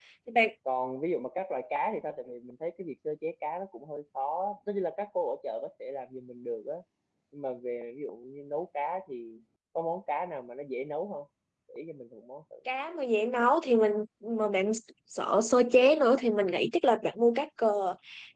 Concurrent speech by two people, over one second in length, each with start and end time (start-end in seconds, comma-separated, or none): none